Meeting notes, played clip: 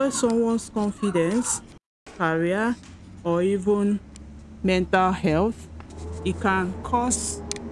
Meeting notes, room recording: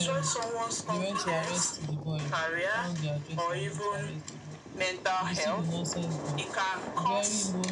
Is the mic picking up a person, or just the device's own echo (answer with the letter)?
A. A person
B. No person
A